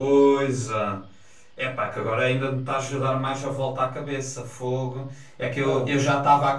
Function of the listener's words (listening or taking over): listening